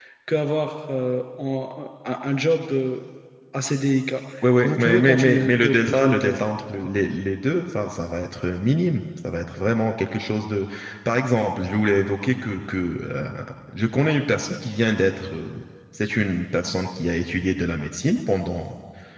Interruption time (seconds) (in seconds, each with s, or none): 4.6 s